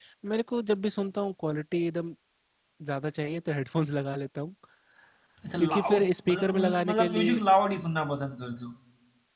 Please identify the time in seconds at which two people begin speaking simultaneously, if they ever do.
5.6 s

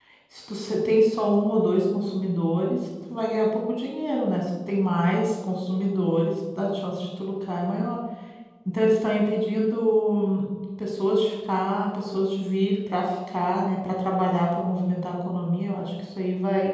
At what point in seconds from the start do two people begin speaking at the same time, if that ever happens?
none

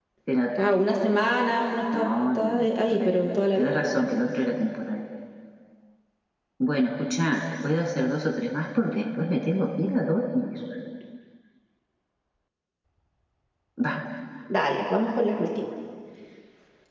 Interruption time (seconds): 1.9 s

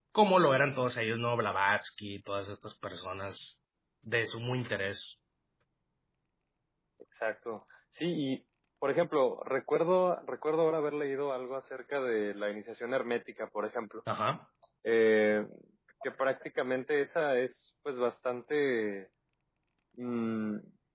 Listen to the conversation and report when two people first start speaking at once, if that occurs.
none

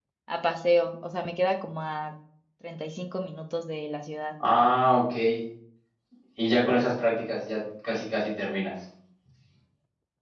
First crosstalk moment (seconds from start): none

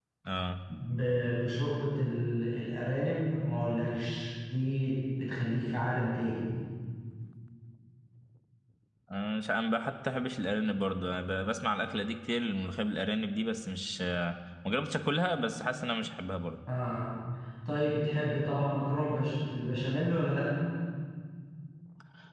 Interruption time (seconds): none

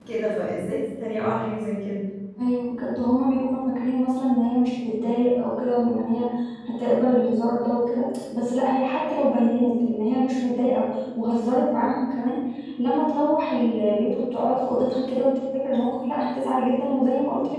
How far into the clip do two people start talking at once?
none

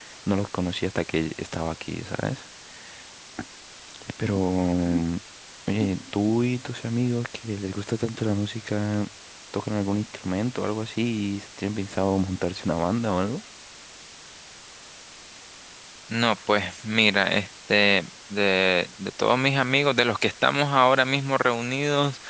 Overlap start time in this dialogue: none

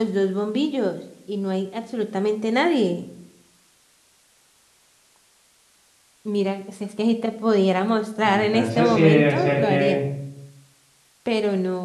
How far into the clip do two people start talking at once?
8.2 s

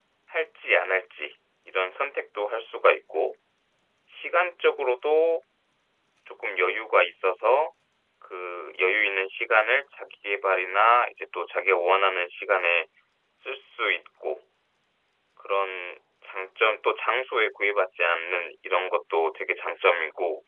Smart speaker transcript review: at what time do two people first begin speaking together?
none

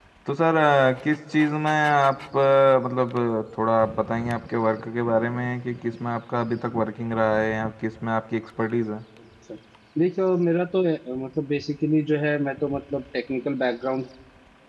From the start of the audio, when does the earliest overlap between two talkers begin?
none

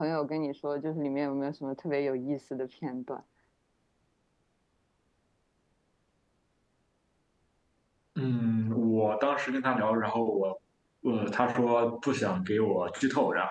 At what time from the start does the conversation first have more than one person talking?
none

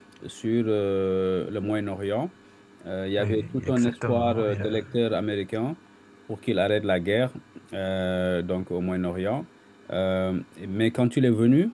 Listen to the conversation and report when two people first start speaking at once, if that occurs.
3.2 s

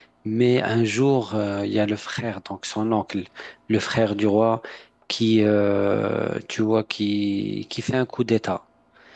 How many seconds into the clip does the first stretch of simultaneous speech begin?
none

